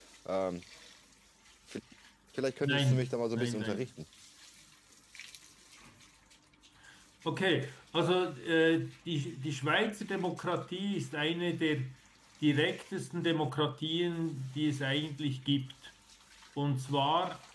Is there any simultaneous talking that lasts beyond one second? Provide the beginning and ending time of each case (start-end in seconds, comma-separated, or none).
2.6-3.9